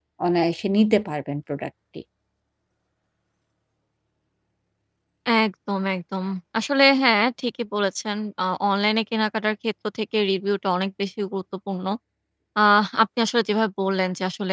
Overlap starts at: none

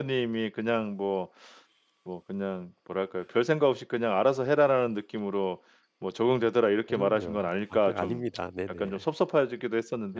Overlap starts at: 7 s

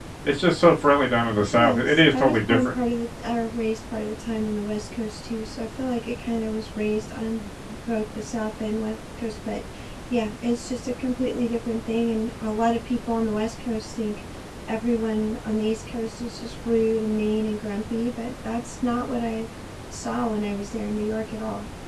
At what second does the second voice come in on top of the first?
2 s

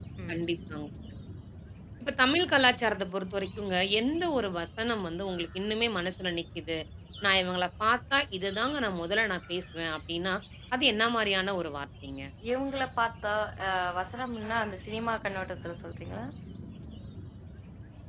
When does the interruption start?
none

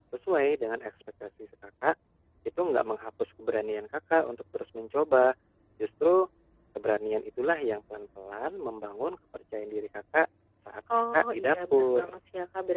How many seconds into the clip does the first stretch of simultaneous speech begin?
11 s

